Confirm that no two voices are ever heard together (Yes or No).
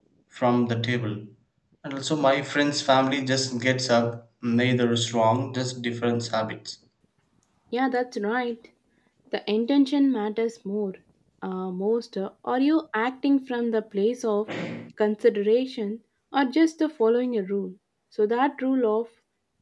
Yes